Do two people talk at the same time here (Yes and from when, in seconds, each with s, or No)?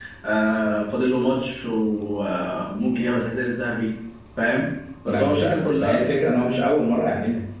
Yes, from 5.1 s